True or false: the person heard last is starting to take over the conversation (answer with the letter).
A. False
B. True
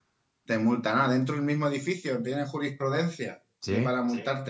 A